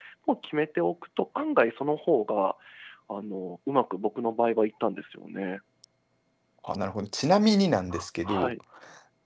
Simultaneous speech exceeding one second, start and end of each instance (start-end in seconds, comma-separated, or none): none